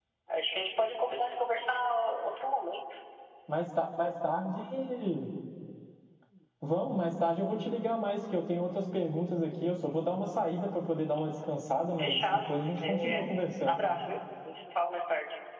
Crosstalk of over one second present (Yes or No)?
Yes